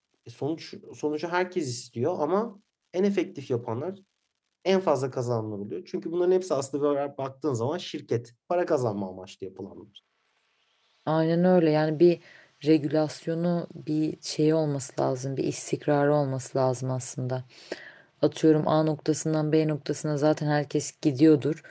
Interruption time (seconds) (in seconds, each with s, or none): none